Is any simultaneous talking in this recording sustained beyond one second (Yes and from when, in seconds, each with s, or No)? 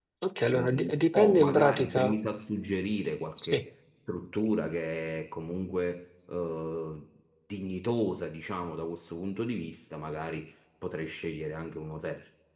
Yes, from 0.5 s